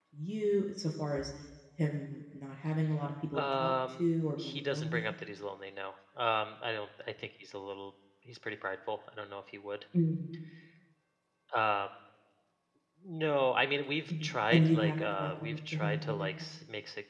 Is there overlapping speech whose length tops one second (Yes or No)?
Yes